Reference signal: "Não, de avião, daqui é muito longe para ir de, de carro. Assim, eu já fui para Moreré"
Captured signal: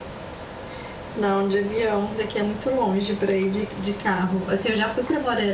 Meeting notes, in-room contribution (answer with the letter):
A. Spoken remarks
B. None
B